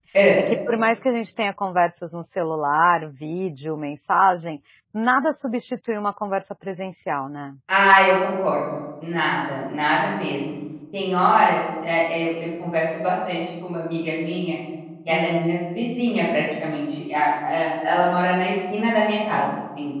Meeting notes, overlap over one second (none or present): none